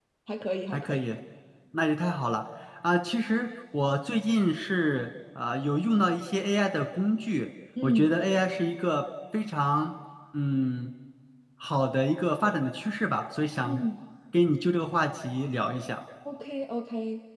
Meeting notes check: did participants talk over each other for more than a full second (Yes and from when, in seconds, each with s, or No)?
No